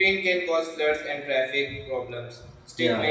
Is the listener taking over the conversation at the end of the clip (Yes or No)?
No